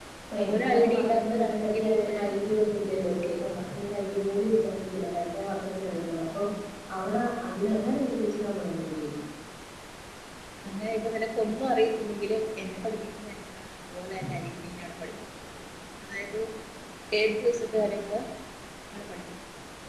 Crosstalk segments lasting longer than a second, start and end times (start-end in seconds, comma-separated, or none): 0.5-2.3